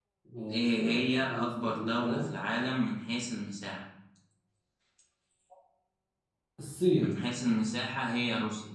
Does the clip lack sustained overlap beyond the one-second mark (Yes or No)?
No